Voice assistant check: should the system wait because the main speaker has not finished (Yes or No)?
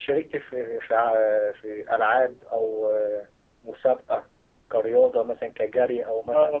No